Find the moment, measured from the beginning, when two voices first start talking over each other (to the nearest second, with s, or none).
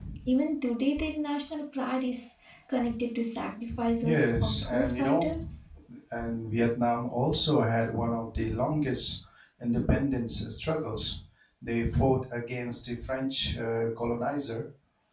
4 s